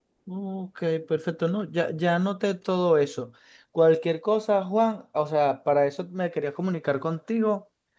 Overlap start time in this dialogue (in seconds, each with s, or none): none